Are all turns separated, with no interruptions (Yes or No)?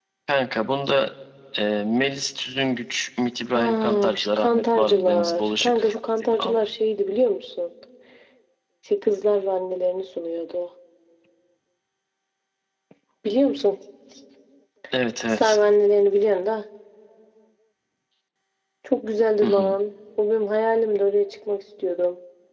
No